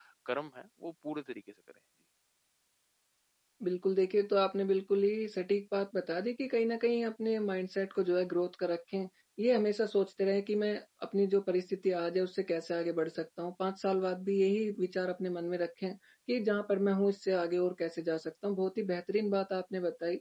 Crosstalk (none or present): none